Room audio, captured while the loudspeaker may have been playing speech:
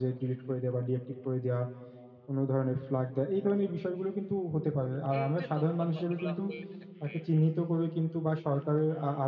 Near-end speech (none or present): present